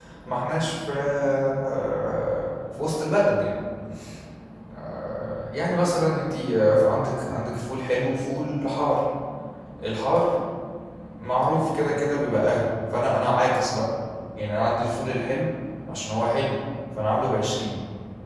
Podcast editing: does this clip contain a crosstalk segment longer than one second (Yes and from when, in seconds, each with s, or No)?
No